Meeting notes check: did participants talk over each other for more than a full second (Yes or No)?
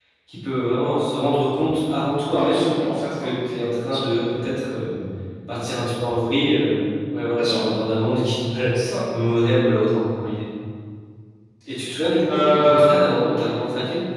Yes